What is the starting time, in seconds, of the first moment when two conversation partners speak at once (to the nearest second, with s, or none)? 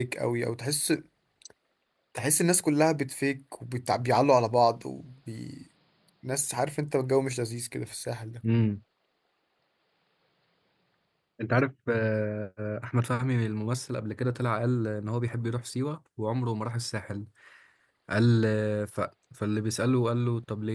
none